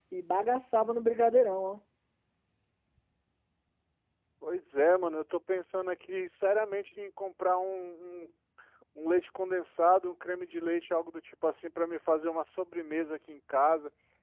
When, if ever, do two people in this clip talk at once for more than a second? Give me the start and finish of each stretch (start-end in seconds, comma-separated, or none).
none